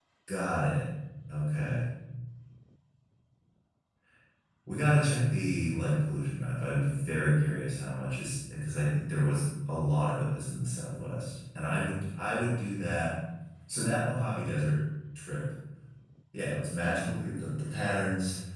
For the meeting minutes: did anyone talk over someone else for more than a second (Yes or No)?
No